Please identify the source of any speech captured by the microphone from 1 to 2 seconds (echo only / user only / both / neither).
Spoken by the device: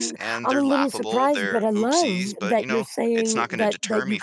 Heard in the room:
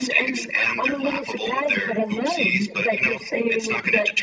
echo only